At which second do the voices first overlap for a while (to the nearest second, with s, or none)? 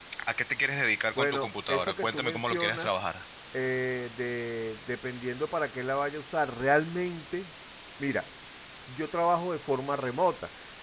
1 s